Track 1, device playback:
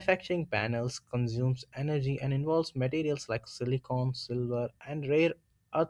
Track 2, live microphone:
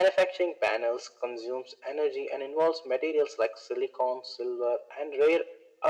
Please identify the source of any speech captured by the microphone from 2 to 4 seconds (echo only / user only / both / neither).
echo only